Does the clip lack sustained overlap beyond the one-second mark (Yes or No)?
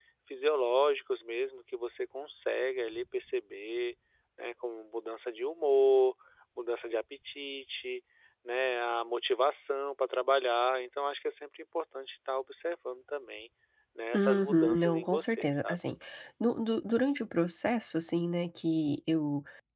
No